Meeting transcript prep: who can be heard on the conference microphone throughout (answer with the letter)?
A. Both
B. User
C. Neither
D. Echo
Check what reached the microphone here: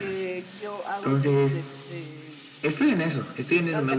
A